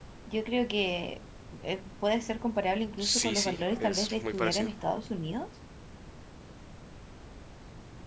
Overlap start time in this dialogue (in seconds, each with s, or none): 3.0 s